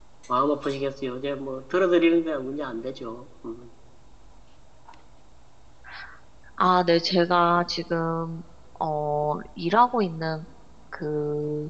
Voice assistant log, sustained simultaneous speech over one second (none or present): none